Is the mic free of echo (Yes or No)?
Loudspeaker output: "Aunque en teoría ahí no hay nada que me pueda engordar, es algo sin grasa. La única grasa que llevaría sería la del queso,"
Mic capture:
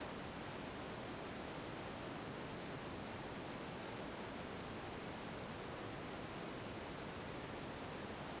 Yes